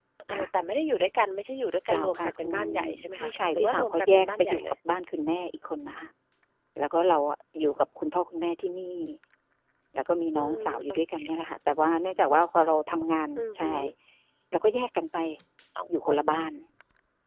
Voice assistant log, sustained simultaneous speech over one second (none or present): present